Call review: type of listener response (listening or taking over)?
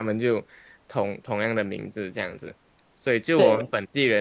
listening